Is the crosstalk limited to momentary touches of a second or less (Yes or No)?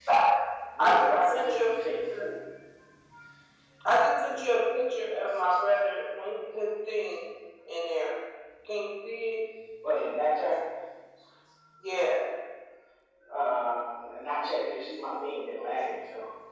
No